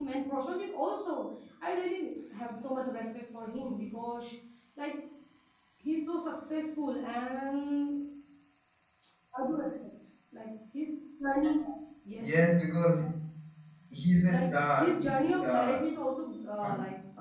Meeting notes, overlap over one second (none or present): present